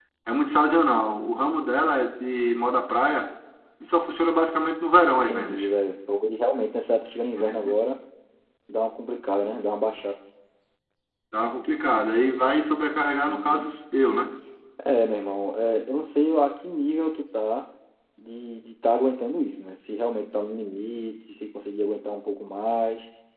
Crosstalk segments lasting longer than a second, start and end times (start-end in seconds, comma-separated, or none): none